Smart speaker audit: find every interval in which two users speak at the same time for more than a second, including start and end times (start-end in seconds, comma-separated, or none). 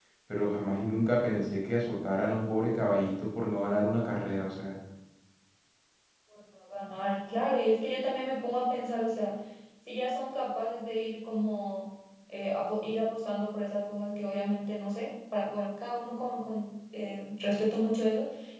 none